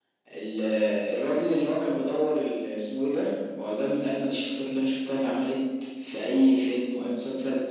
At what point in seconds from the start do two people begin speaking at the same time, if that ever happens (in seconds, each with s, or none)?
none